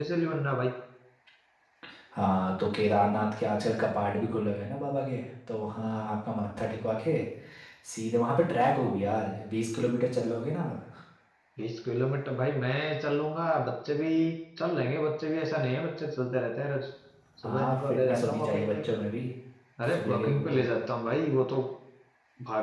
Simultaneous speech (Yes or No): Yes